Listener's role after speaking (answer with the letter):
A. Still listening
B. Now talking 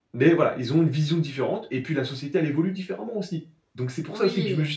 A